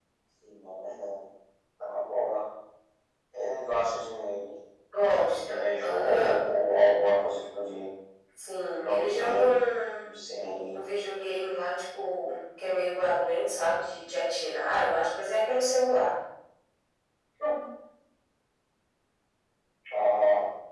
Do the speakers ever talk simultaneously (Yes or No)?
Yes